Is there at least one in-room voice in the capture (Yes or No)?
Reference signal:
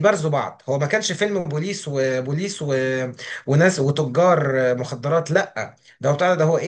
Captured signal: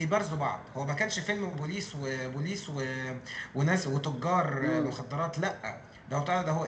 Yes